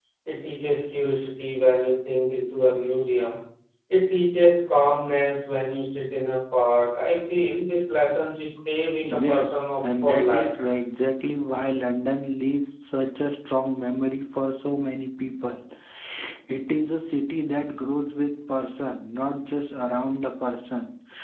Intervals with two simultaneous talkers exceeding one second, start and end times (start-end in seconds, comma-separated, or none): 9.0-10.5